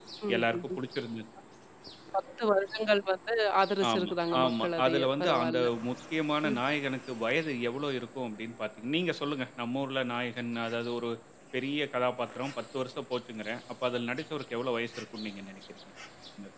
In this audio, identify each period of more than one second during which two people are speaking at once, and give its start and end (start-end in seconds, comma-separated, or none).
3.9-5.6